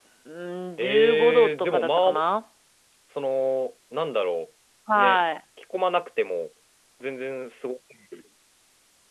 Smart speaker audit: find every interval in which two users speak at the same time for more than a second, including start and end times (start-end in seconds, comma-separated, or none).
0.8-2.1